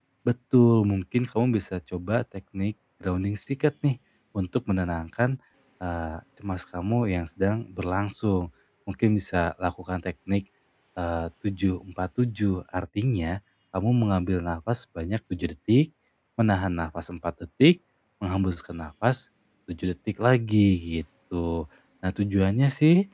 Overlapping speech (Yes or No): No